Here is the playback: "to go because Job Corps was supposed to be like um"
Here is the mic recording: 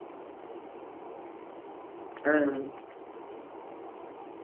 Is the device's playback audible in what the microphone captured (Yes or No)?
No